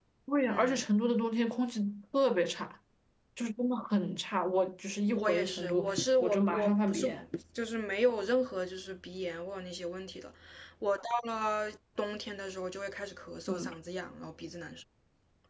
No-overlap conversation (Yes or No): No